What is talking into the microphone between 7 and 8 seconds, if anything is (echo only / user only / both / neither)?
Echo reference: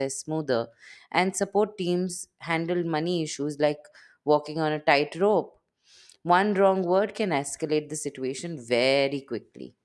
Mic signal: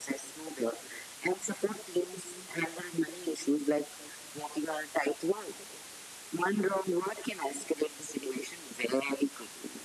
echo only